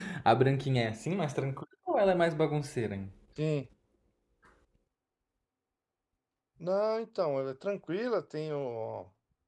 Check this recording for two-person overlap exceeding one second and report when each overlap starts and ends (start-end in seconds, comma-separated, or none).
none